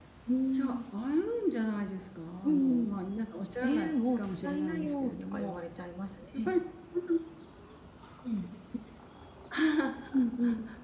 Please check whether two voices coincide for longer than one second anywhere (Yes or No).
Yes